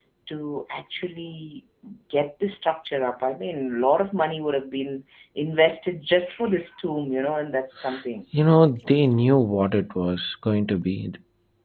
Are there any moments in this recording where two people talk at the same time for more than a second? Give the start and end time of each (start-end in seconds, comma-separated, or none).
none